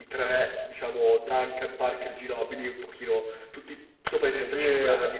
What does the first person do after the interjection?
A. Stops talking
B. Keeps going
A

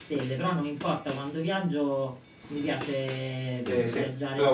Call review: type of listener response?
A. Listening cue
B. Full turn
B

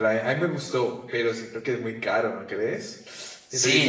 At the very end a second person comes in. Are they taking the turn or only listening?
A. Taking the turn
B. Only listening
A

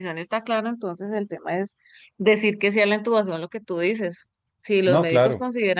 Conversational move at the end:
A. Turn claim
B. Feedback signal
B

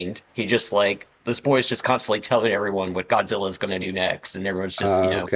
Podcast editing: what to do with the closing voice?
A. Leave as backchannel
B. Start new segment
A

